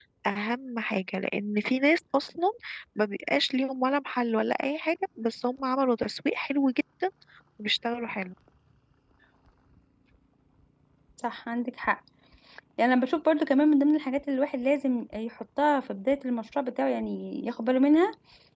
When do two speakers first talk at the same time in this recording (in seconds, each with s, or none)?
none